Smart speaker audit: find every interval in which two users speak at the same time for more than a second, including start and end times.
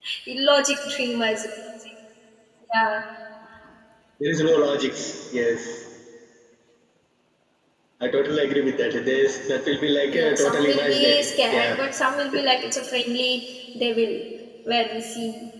10.1-11.7

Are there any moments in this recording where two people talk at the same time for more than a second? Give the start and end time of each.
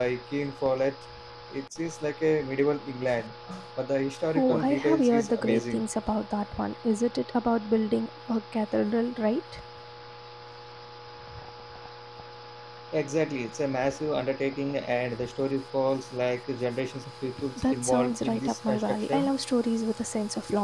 4.4-5.8, 17.6-19.3

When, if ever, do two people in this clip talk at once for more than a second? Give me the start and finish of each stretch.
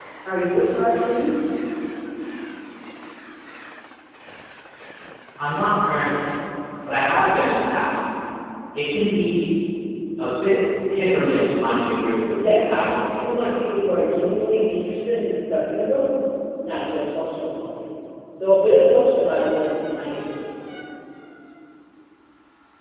12.3-13.5

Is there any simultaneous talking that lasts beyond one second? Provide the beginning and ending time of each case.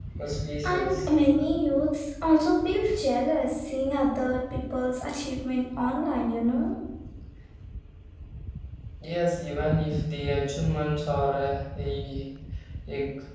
none

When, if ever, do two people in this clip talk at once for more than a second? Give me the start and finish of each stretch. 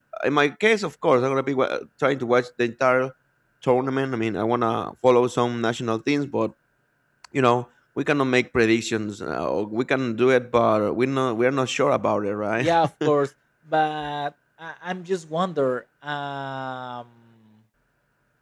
none

